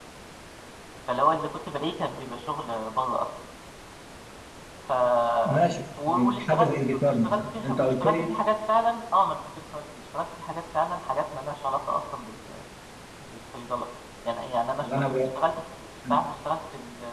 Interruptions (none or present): present